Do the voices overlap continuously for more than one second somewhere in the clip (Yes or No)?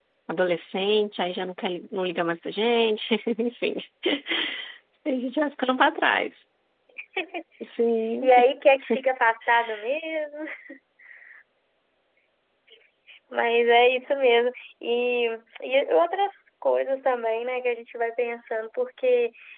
No